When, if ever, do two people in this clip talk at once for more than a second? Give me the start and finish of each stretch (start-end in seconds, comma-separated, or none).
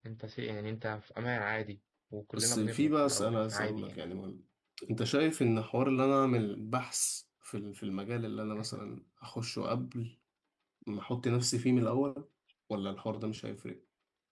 2.3-4.0